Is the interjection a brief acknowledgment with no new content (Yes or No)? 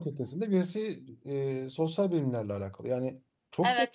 No